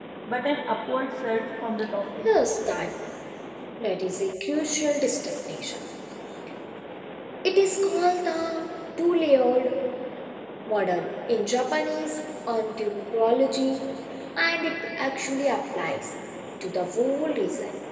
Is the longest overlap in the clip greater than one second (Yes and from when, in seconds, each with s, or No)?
No